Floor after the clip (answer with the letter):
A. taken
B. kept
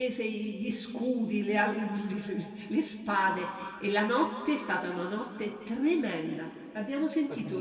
B